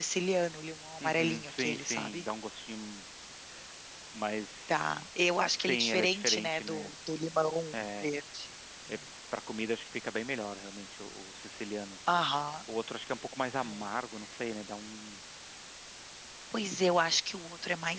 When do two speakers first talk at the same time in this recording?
1 s

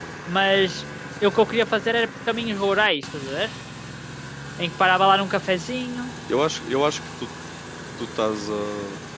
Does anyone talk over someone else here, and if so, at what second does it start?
none

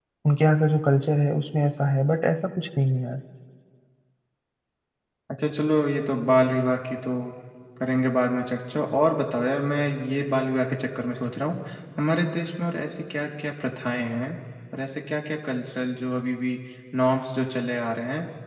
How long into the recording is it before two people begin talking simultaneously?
none

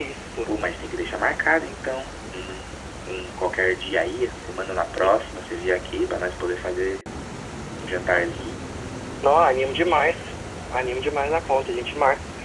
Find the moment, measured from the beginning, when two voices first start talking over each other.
none

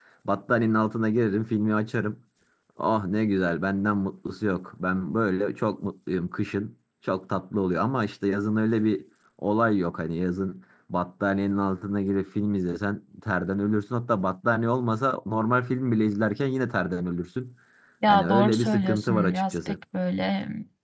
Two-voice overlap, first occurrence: 18 s

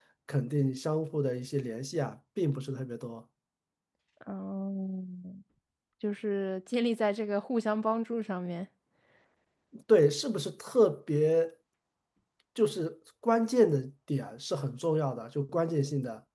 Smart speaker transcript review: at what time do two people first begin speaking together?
none

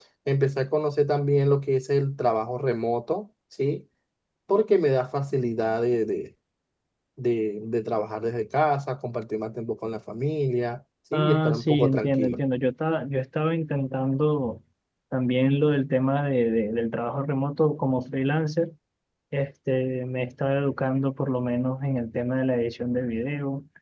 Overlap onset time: 11 s

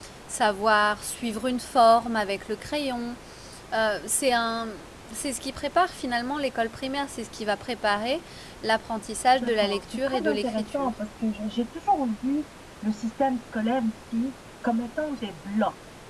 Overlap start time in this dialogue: 9 s

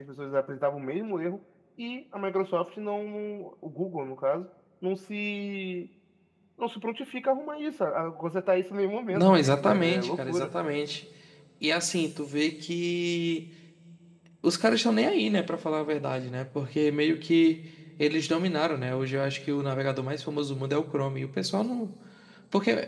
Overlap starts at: 9 s

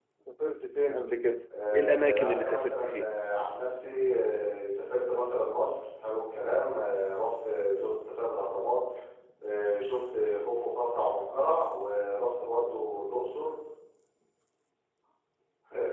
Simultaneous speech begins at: 1 s

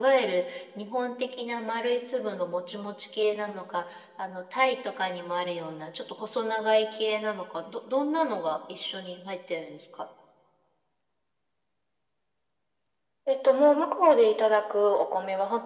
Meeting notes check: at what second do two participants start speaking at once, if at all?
none

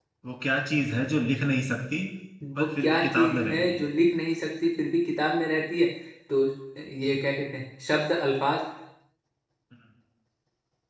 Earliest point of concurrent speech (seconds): 3 s

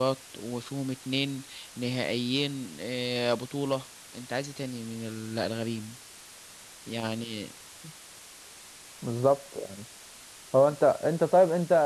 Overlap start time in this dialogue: none

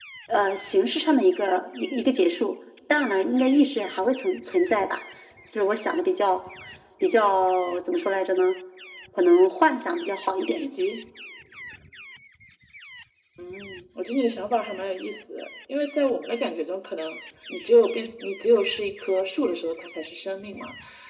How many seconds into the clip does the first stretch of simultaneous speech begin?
none

